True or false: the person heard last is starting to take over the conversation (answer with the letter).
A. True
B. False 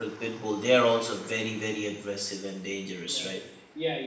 A